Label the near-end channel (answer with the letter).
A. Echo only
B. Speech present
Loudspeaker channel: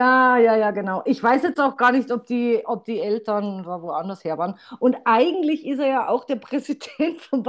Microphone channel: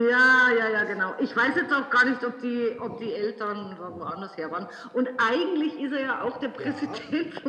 B